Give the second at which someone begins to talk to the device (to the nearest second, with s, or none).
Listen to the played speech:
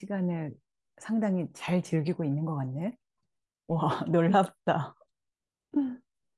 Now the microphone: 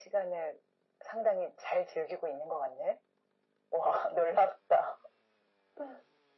none